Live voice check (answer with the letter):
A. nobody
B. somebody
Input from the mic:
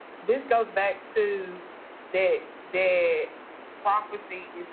A